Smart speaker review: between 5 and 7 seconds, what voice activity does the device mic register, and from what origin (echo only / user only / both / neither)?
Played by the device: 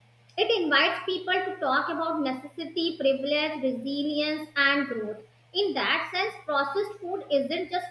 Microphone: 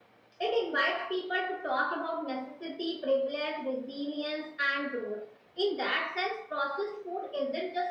echo only